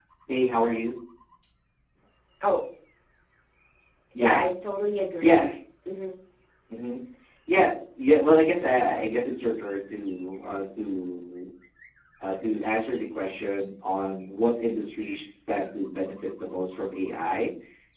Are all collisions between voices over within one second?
Yes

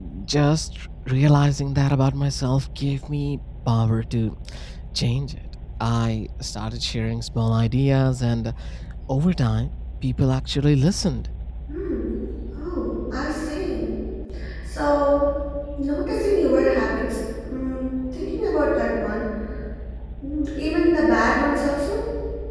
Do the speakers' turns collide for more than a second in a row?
No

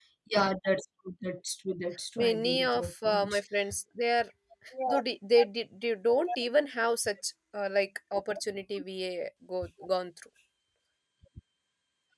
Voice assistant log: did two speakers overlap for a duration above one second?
Yes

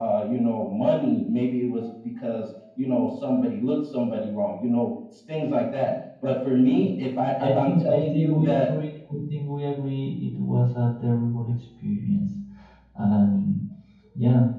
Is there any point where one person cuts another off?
Yes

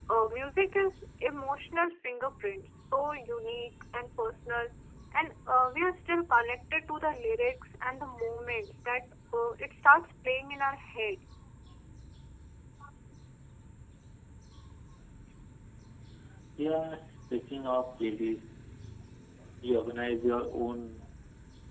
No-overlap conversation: Yes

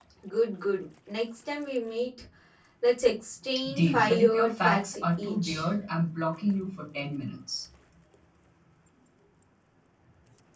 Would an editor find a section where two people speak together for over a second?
Yes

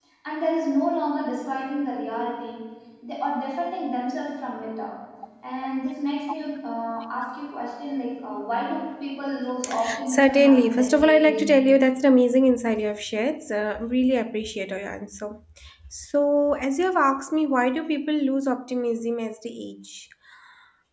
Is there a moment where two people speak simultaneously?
Yes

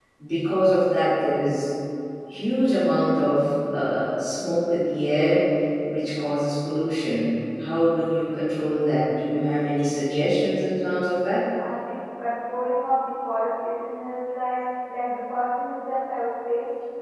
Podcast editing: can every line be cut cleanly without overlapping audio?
Yes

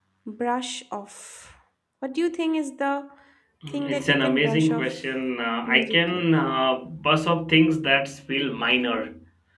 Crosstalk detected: Yes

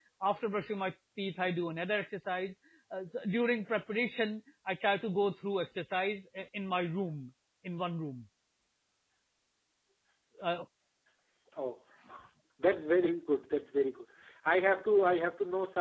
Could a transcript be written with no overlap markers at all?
Yes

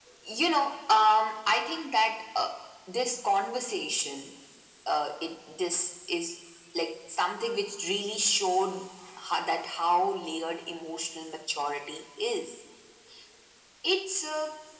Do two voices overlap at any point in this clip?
No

